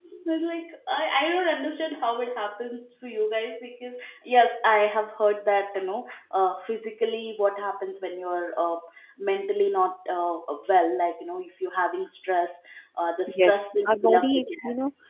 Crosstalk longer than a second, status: present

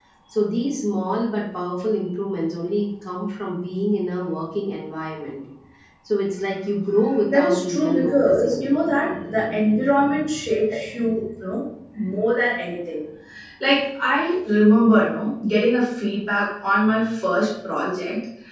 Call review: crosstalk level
present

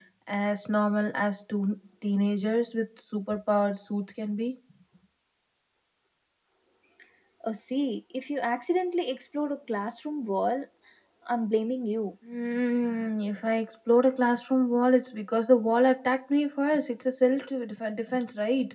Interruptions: none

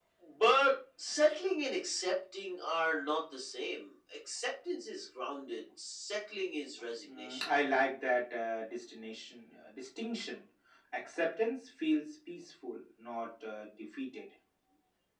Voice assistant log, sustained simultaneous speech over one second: none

